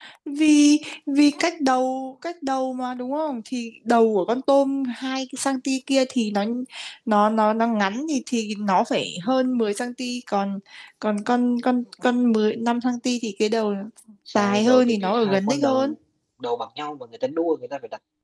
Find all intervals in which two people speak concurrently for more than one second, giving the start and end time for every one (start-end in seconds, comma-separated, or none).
14.3-15.9